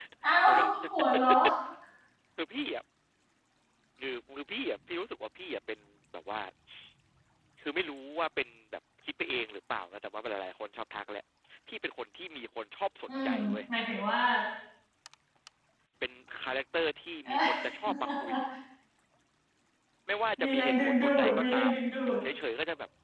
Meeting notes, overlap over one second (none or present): present